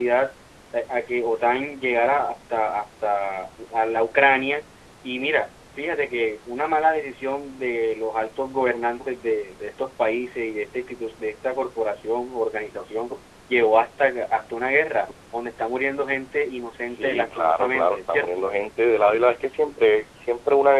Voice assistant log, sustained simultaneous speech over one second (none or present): present